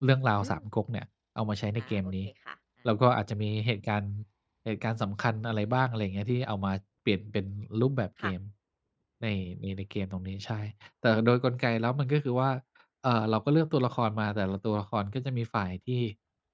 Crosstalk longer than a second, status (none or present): none